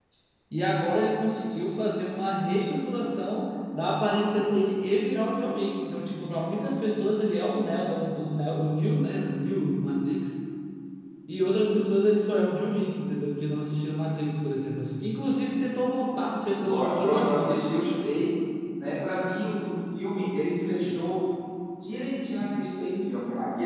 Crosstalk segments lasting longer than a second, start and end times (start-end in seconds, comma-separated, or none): 16.6-17.9